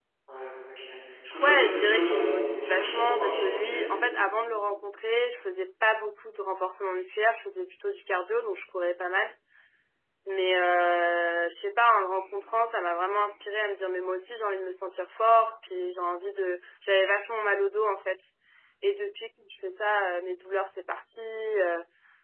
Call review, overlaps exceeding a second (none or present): present